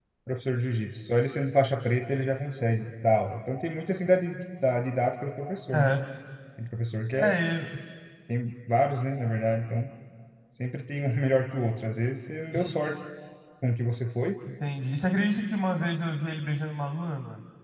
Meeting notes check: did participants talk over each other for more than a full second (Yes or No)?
No